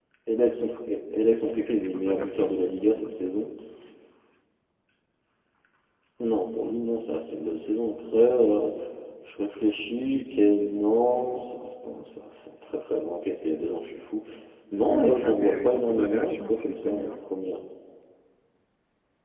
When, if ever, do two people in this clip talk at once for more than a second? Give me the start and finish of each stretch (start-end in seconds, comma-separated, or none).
1.8-3.4, 14.9-17.2